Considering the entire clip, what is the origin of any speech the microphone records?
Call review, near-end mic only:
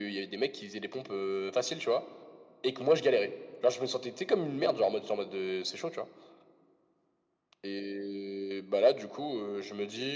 echo only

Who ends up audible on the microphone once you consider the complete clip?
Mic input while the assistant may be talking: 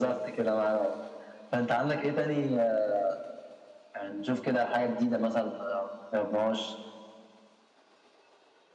echo only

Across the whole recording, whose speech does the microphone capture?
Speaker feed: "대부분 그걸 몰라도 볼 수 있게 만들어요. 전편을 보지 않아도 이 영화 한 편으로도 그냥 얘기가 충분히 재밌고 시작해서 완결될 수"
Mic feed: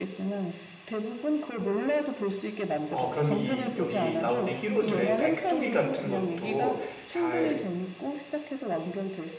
both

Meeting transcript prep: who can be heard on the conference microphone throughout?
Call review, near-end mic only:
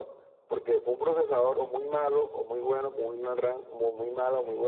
echo only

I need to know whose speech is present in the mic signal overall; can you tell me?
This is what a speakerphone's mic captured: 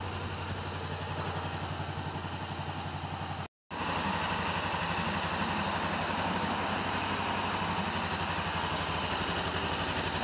neither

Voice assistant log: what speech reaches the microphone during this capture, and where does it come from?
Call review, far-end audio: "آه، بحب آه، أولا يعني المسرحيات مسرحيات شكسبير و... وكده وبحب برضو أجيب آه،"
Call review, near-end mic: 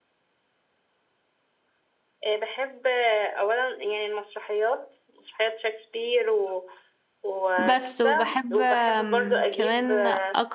both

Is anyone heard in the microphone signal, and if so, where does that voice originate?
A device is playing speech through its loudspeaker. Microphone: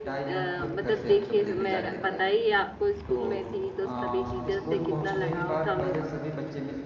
both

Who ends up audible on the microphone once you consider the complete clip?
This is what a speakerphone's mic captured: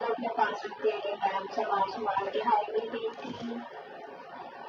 echo only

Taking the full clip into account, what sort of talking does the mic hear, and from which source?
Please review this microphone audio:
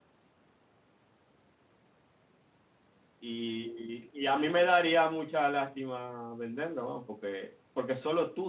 user only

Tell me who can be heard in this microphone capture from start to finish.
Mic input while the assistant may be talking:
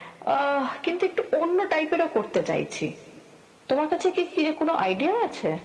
echo only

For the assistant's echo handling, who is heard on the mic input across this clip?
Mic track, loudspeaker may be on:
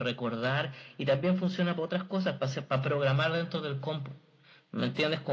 echo only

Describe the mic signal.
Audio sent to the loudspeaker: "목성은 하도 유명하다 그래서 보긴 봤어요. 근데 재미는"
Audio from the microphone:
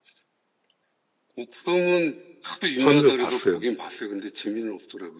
both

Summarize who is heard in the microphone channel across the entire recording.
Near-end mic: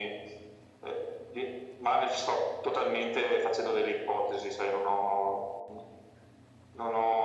echo only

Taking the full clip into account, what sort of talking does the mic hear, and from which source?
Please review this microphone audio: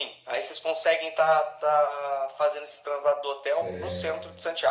both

